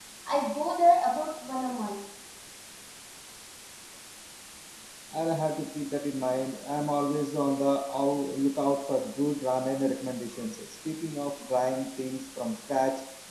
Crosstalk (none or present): none